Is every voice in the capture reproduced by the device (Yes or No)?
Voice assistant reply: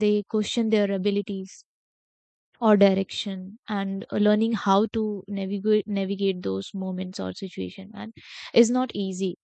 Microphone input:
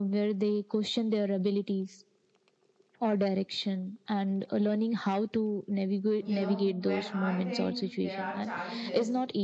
No